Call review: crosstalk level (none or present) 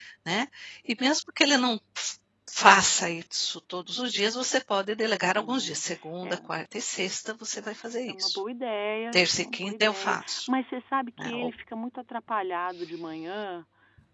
present